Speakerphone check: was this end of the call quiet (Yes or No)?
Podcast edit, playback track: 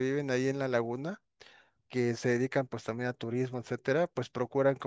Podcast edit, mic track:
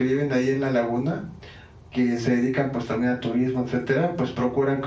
Yes